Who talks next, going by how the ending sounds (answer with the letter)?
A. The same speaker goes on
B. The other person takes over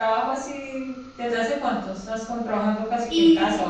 B